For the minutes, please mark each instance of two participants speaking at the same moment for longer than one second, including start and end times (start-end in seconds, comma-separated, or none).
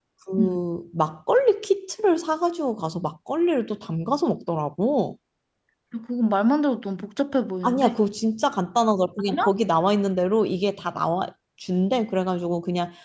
none